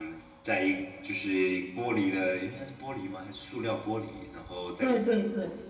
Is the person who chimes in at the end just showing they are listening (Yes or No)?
No